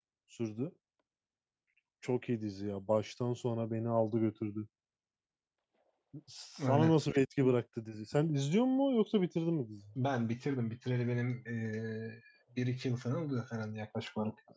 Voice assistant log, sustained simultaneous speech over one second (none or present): none